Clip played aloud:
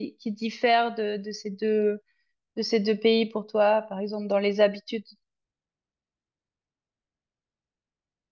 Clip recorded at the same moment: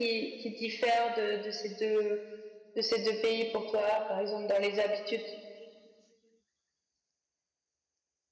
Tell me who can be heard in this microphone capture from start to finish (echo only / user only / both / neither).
echo only